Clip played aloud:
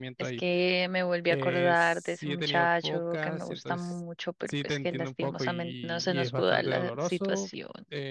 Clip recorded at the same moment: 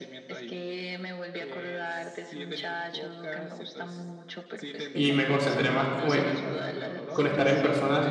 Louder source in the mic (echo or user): user